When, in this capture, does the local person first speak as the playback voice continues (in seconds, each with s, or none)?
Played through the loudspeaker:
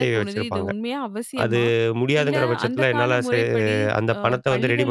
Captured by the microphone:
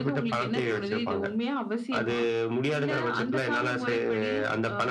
none